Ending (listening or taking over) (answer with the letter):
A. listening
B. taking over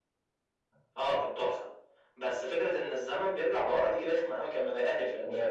B